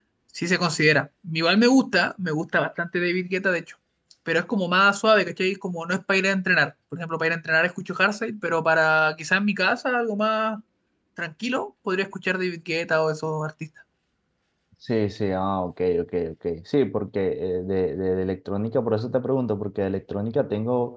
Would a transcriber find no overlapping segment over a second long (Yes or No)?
Yes